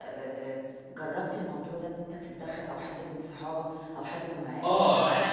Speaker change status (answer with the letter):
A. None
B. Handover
B